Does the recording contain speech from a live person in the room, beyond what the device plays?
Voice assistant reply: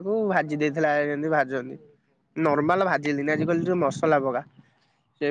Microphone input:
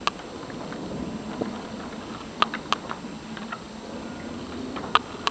No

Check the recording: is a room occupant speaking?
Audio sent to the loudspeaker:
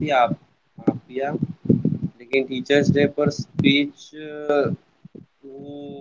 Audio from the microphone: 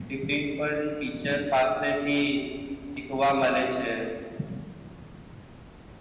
Yes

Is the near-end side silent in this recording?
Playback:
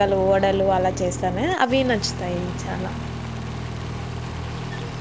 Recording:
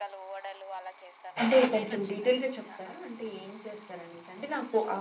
No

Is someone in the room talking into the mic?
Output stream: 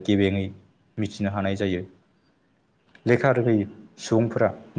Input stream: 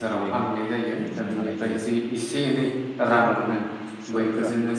Yes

